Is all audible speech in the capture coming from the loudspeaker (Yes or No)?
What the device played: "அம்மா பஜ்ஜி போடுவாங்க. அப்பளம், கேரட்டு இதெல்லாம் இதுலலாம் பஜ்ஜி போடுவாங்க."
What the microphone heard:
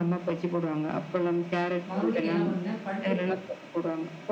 No